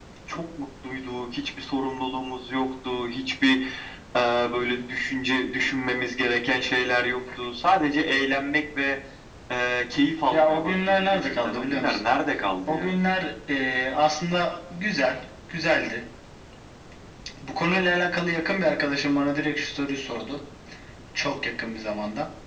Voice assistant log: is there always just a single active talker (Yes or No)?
No